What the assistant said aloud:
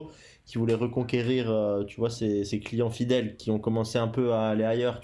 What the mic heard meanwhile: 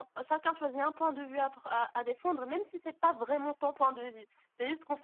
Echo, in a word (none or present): none